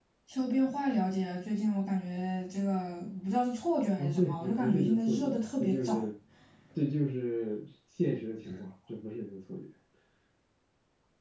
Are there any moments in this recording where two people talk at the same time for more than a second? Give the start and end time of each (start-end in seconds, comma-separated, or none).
4.0-6.0